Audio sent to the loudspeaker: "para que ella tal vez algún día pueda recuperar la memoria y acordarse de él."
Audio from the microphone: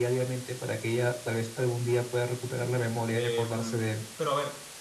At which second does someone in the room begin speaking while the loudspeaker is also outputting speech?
3.1 s

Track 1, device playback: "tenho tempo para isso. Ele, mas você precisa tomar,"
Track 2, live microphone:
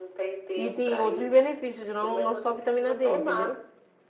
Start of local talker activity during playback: 0.6 s

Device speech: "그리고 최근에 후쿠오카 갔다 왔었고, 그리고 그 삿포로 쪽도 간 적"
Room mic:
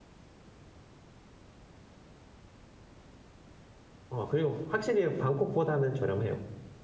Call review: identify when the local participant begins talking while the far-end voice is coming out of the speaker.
4.1 s

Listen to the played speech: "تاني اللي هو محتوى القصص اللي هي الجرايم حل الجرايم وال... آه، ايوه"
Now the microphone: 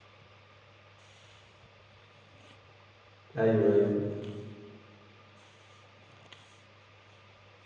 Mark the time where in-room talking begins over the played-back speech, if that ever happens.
3.4 s

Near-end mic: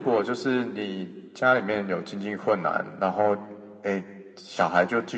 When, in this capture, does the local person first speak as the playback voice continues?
none

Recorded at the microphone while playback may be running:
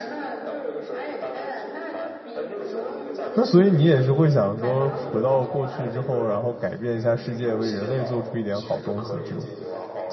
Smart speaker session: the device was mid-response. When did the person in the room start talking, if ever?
3.4 s

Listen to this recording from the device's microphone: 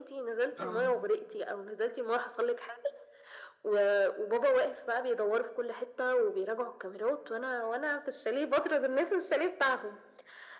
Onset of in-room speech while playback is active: 0.6 s

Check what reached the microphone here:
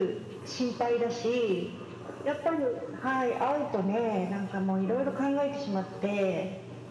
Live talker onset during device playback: none

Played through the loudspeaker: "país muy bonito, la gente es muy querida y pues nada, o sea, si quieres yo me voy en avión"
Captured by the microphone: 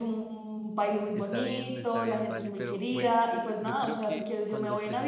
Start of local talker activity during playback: 1.1 s

